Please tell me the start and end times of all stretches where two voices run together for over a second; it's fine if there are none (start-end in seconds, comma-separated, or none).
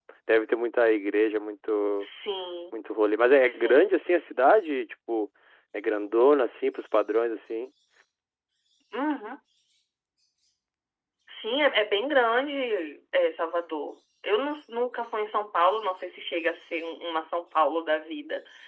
none